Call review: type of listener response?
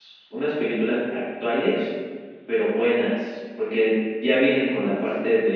listening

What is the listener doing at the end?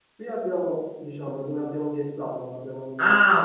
taking over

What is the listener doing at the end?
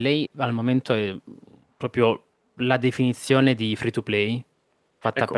taking over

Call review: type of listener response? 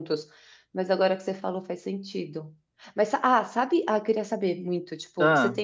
listening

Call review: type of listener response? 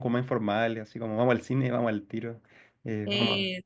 listening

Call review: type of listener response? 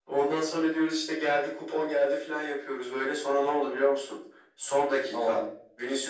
listening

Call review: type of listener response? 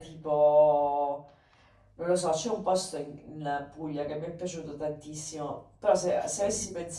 listening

